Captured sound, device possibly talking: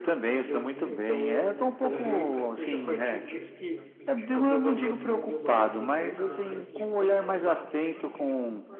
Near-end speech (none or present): present